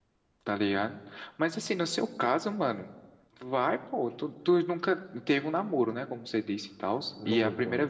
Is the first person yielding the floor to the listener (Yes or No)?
No